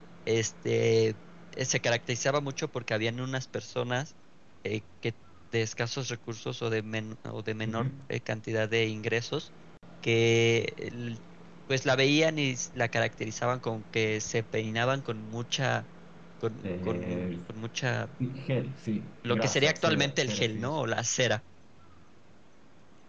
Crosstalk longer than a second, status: present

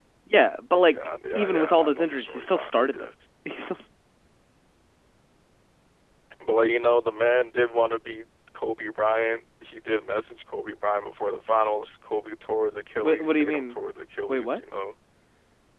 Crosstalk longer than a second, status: present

